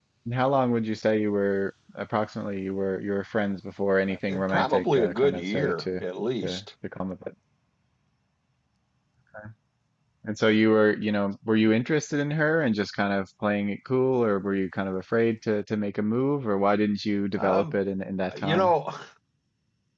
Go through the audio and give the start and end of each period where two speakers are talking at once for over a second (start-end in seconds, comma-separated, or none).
4.3-6.0